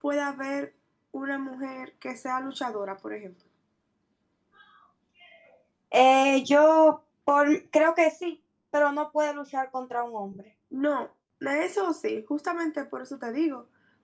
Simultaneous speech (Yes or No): No